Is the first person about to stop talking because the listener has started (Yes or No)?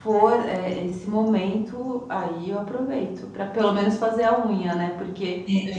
No